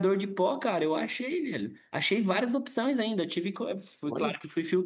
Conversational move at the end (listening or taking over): listening